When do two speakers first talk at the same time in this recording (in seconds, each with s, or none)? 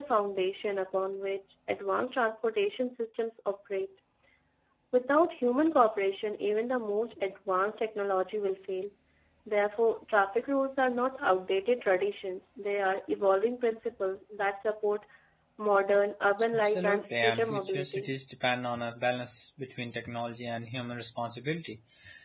16.5 s